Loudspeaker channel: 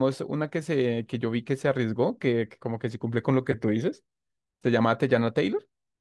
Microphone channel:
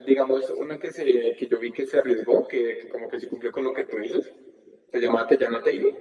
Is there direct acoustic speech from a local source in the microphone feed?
No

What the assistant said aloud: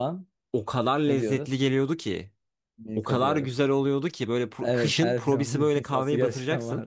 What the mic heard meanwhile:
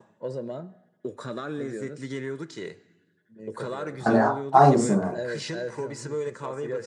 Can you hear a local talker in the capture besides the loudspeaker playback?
Yes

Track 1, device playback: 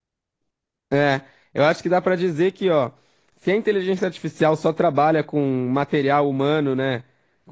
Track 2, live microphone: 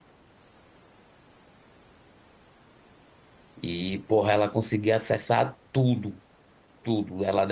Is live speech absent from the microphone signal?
No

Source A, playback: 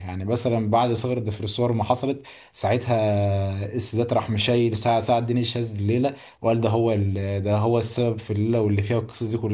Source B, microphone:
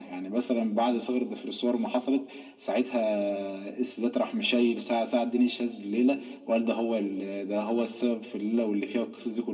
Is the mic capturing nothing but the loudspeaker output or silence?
Yes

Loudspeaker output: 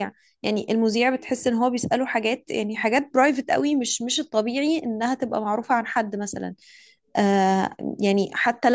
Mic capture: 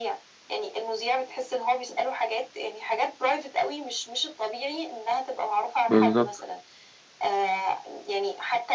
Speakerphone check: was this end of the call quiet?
No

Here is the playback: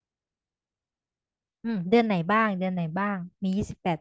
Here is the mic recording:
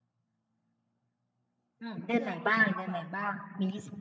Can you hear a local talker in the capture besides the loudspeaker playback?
Yes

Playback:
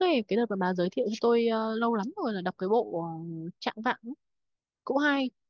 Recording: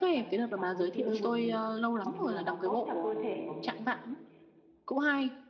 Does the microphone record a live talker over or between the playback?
Yes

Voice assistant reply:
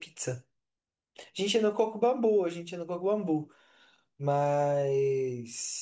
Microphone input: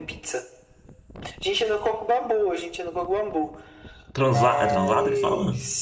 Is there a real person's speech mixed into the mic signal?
Yes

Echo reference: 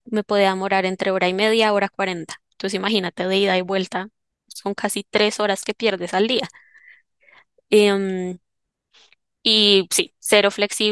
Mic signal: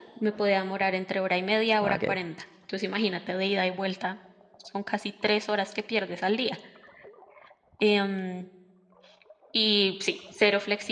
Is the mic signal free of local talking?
No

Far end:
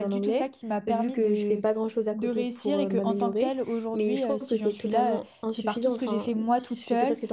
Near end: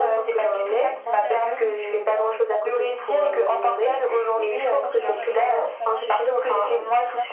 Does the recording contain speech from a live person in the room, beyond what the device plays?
Yes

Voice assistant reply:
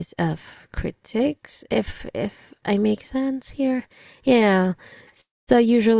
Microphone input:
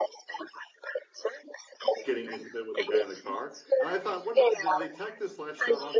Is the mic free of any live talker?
No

